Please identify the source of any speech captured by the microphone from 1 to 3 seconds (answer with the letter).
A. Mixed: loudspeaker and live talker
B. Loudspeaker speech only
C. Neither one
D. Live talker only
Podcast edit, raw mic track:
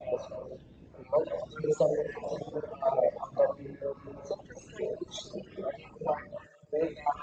B